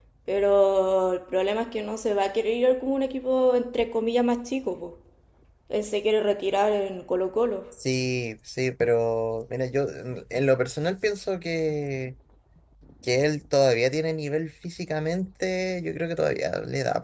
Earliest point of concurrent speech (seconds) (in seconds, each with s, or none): none